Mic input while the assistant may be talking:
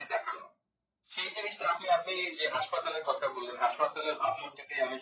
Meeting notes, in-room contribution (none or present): none